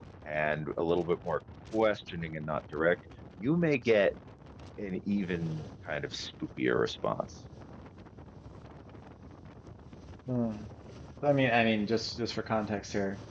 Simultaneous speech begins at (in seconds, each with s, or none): none